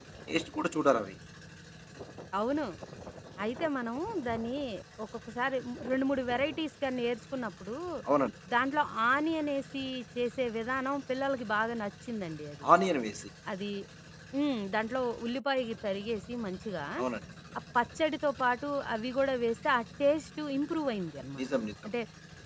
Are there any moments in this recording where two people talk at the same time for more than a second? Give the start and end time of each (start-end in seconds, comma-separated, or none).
none